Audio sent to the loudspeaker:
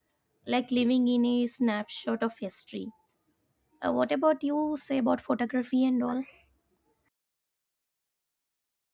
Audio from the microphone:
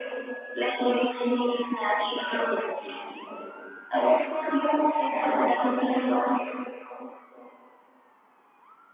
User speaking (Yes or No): No